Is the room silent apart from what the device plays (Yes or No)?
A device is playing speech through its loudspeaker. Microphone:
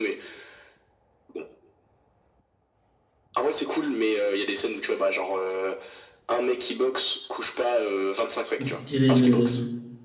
No